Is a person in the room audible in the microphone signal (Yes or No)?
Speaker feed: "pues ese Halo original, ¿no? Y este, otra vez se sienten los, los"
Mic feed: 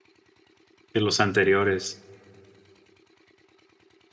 Yes